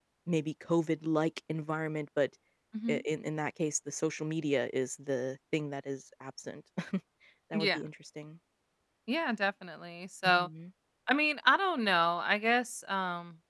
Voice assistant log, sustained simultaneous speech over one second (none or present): none